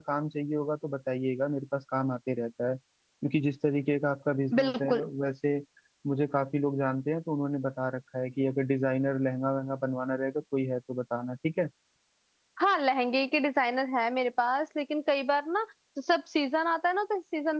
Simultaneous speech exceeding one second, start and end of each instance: none

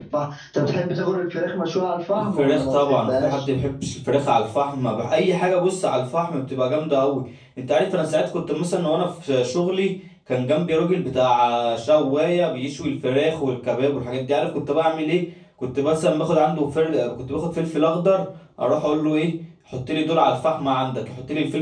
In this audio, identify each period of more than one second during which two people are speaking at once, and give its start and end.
2.2-3.4

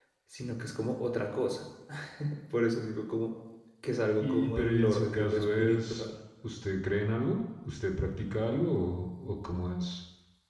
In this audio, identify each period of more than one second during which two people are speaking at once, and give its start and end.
4.2-6.0

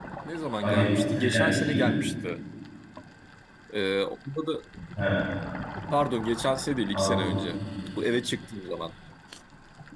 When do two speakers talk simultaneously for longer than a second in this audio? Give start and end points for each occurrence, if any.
0.6-1.9

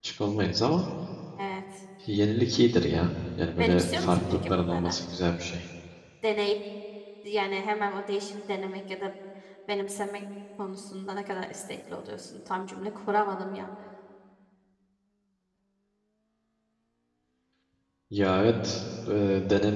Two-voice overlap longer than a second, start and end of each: 3.6-5.0

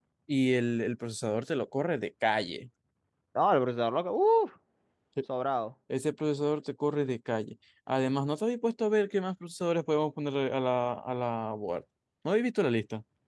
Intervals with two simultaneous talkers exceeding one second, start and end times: none

